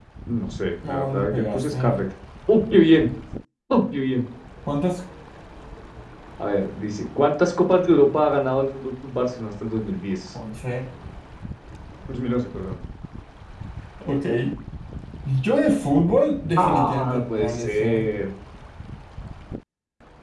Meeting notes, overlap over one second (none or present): present